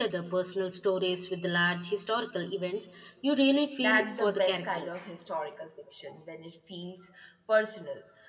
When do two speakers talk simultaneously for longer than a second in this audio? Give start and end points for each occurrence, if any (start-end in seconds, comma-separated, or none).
3.8-5.1